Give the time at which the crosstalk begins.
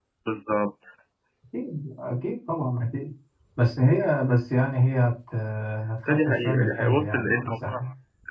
6.1 s

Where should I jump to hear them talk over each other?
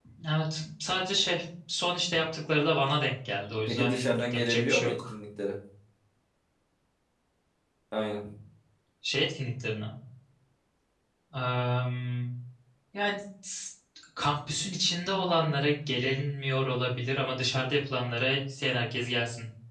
3.5 s

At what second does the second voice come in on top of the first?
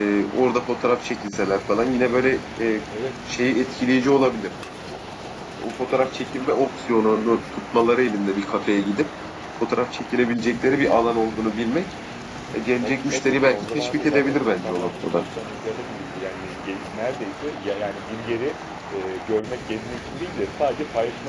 12.8 s

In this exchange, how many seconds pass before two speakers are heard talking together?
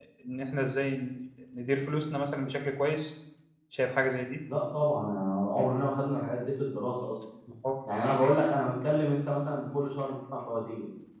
none

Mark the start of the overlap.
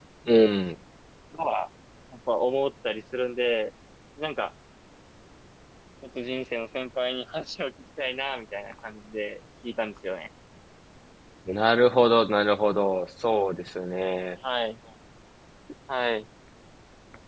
none

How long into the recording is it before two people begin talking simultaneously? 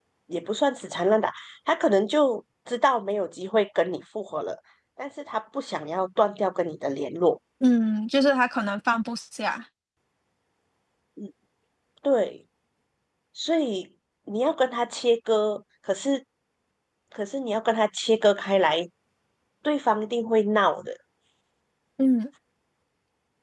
none

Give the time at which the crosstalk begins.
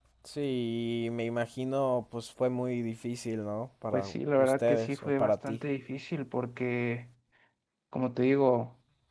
3.9 s

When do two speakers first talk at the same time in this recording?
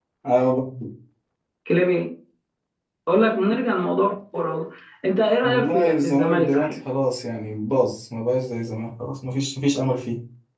5.4 s

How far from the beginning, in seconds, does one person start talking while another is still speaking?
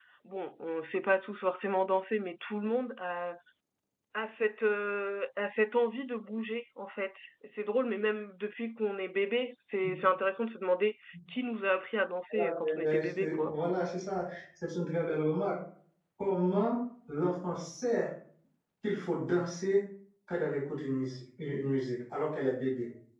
12.3 s

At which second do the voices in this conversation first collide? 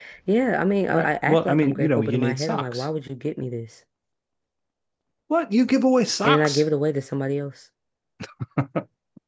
0.9 s

